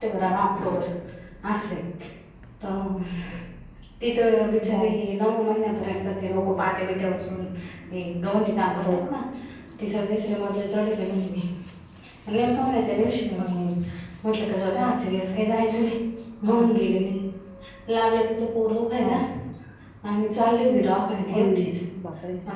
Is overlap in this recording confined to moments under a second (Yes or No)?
Yes